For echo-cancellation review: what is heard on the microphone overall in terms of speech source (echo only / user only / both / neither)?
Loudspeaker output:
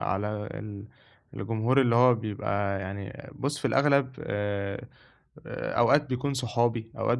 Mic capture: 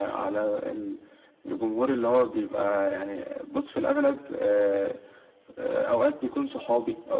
echo only